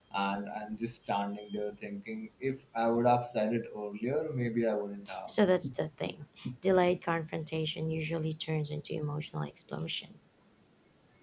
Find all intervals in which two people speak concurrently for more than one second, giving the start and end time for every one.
none

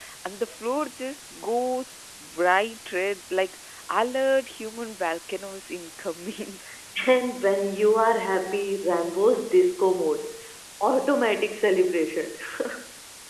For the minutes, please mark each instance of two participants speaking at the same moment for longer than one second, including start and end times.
none

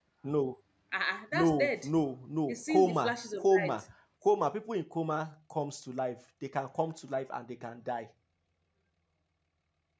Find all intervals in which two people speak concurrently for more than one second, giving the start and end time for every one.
2.5-3.8

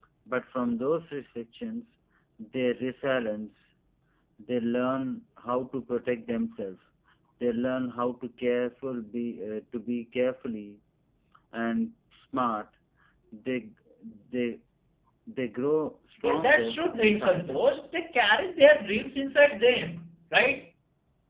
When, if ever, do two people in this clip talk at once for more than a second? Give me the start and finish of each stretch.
16.2-17.8

